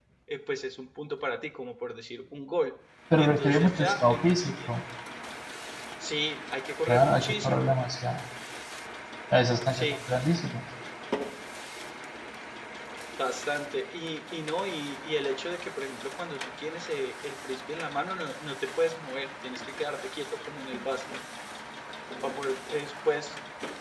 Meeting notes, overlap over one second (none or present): present